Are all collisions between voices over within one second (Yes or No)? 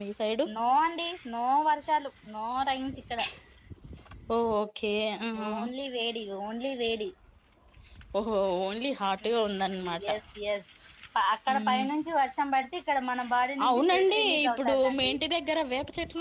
No